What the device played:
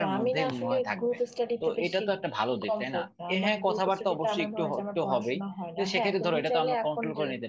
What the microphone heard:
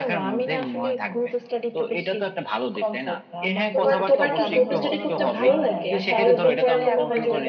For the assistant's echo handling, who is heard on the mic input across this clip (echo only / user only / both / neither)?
both